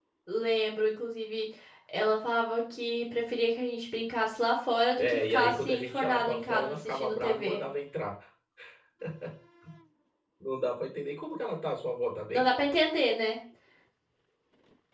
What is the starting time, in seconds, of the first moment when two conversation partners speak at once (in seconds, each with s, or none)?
5.0 s